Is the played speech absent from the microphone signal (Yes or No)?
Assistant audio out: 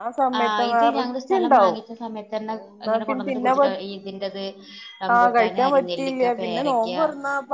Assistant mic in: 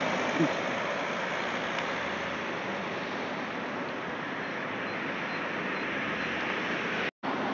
Yes